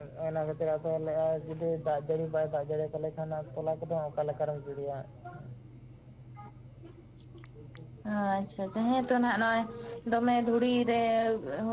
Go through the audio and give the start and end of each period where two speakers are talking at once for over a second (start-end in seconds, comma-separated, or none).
none